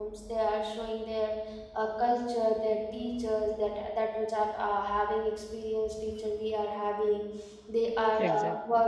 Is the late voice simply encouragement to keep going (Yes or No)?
Yes